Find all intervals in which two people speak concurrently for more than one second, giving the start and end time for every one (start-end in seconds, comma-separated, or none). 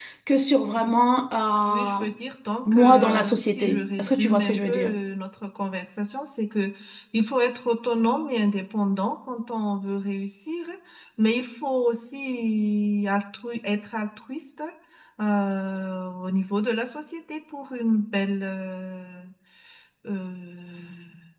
2.7-5.0